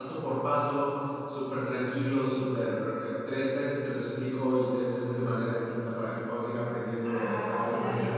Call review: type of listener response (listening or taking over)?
taking over